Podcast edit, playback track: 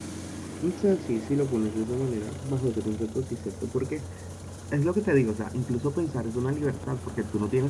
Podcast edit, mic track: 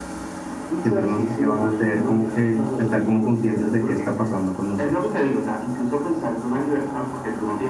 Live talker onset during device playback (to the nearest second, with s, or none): 1 s